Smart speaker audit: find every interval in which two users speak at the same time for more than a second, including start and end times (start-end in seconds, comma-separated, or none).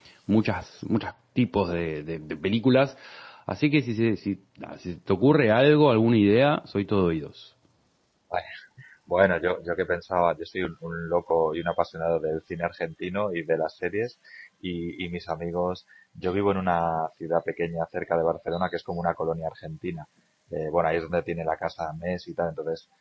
none